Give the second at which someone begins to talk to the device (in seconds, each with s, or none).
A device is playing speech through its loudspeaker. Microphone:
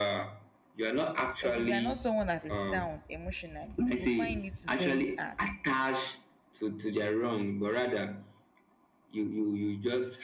1.3 s